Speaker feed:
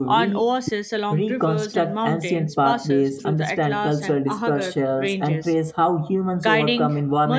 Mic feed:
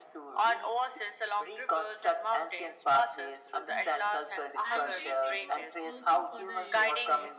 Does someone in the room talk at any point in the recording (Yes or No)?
Yes